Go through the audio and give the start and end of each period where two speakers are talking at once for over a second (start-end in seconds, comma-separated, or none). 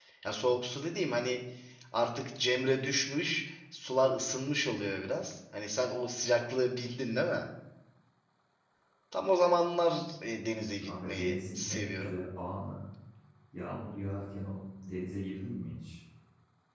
10.8-12.1